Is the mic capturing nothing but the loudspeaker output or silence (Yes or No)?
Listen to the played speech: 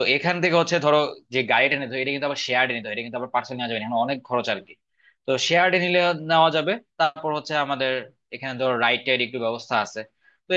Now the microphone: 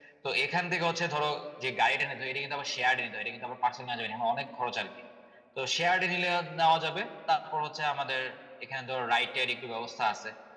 Yes